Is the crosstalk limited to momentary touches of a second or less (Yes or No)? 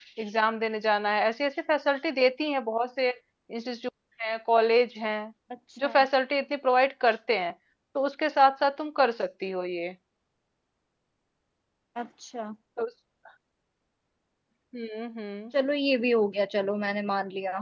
Yes